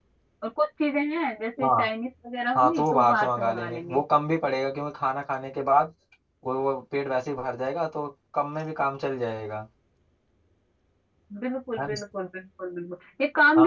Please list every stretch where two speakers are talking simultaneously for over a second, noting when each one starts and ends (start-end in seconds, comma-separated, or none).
2.6-4.0